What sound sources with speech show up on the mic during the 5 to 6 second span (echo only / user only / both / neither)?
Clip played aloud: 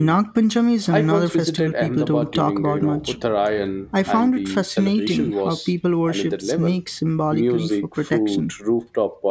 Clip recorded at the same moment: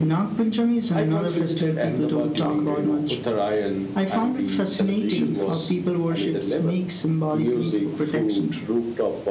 echo only